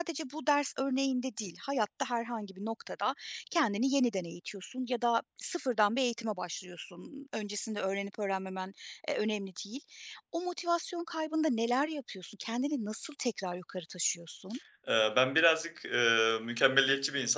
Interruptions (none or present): none